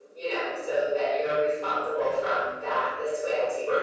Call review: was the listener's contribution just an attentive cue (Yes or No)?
No